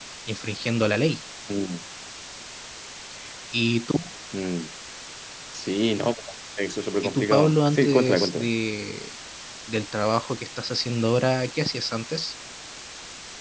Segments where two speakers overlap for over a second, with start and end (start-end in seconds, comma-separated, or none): 7.0-8.5